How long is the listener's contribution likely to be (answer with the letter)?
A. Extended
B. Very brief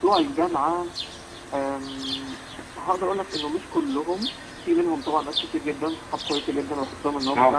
B